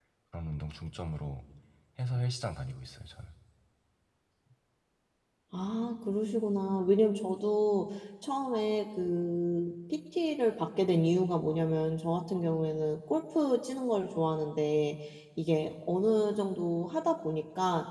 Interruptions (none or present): none